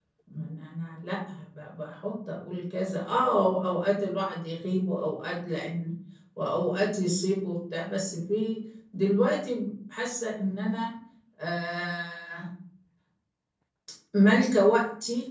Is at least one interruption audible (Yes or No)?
No